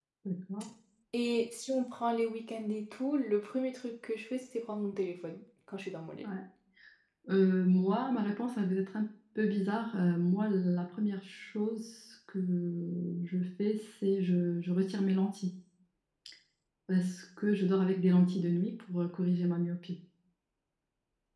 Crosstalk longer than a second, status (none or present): none